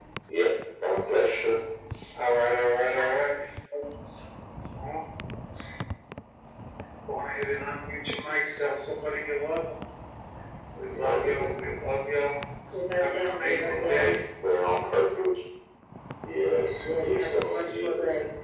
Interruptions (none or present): present